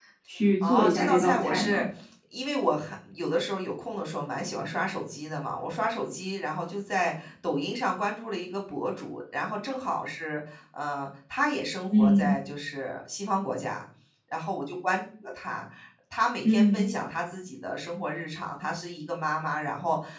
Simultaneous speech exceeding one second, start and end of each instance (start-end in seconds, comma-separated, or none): 0.6-1.8